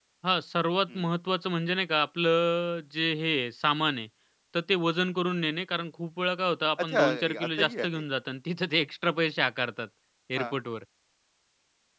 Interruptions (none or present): present